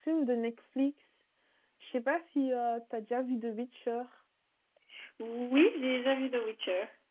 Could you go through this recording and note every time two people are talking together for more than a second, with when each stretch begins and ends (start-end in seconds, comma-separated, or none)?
none